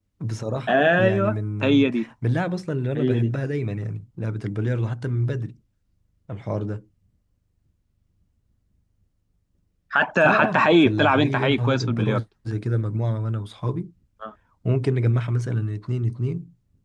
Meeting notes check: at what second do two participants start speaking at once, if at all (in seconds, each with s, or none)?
0.7 s